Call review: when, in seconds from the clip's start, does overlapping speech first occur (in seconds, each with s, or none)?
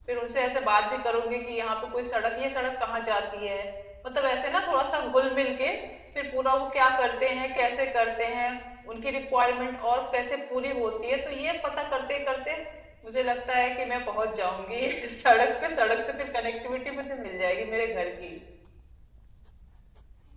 none